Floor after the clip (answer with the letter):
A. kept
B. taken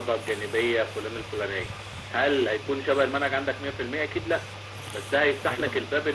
A